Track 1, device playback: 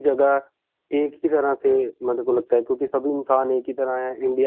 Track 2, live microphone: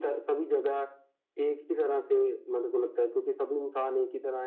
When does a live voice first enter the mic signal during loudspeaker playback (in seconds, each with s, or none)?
none